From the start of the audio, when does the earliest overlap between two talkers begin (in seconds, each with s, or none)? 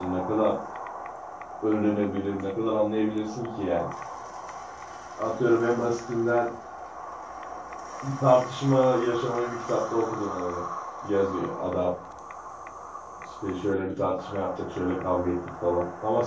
none